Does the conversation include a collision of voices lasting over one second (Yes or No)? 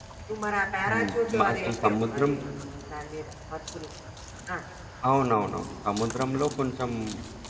Yes